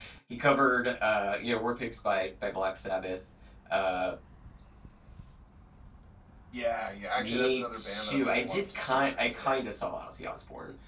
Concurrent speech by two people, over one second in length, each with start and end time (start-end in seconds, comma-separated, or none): 7.2-9.6